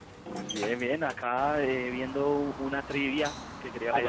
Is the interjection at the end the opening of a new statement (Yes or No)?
Yes